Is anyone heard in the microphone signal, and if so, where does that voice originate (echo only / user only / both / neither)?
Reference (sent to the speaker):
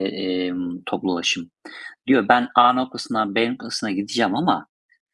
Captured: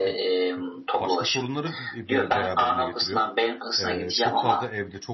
both